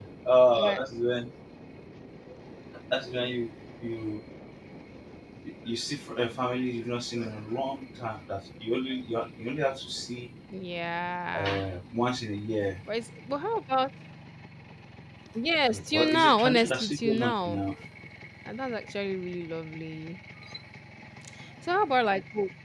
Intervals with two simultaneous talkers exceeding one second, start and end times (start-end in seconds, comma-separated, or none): 15.7-17.6